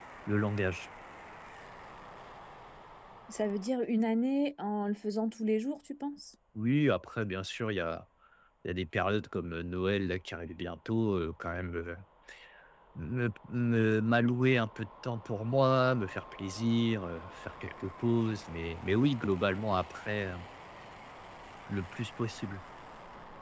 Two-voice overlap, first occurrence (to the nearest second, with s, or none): none